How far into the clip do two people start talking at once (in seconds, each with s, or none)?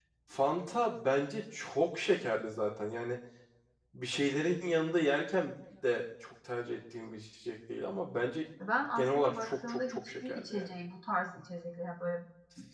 8.9 s